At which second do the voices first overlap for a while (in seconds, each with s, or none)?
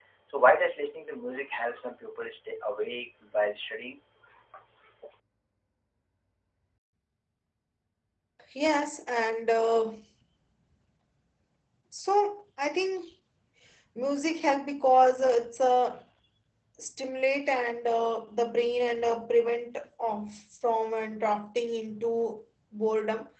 none